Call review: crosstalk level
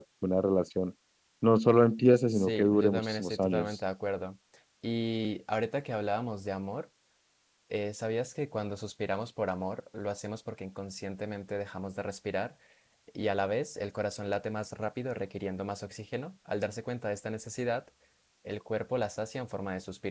present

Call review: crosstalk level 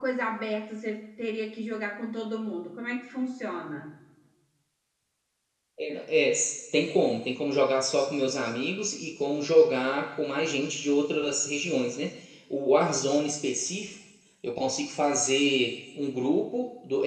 none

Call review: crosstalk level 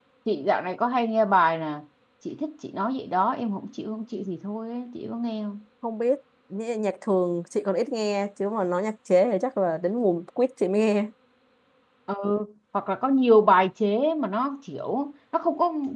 none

